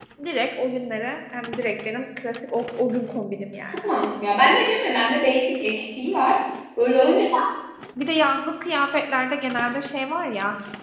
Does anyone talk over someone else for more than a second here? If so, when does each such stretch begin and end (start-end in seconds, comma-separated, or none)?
none